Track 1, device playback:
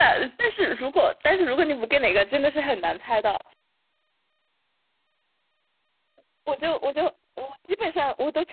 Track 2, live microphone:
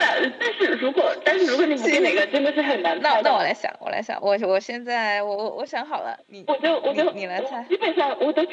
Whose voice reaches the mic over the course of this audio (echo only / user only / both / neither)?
both